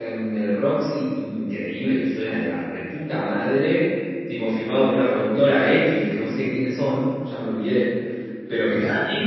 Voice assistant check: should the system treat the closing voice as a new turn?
No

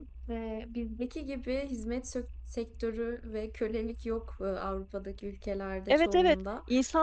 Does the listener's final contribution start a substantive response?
Yes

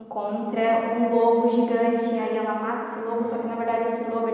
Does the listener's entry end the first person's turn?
No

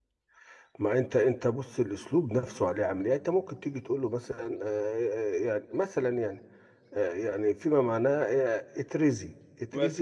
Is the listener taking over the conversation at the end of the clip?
No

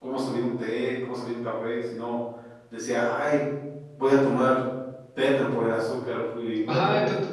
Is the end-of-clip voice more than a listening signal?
Yes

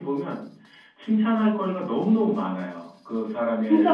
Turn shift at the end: No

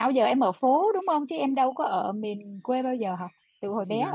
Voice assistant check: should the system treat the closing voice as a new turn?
Yes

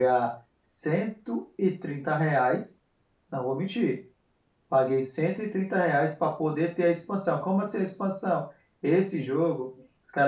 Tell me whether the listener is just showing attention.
Yes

